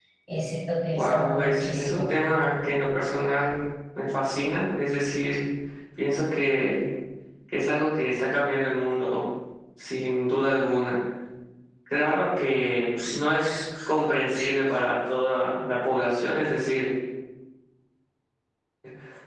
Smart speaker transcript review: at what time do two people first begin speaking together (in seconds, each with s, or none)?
0.9 s